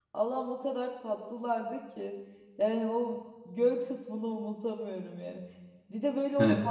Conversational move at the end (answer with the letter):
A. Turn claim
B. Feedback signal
B